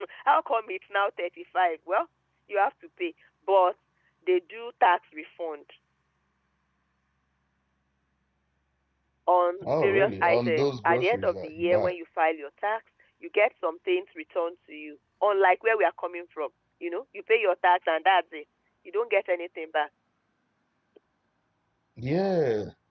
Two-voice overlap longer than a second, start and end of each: 9.6-11.9

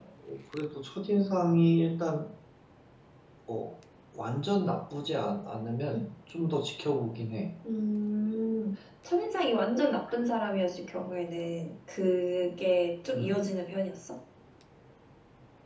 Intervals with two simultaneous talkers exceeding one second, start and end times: none

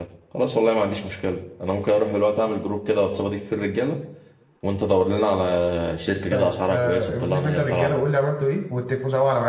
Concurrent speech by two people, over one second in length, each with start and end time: 6.3-8.0

